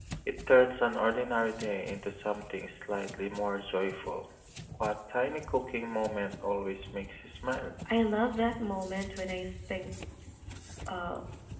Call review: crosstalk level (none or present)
none